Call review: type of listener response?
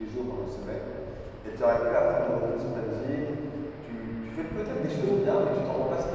listening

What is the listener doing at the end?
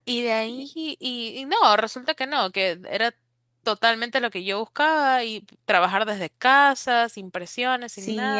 taking over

